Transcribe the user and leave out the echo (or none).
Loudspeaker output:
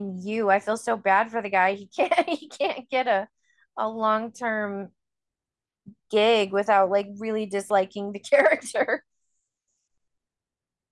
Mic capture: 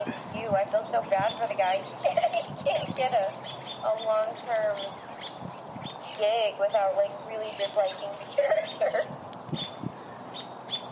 none